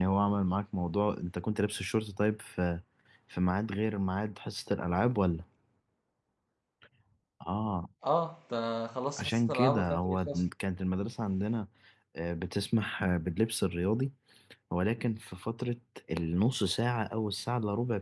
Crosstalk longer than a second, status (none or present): present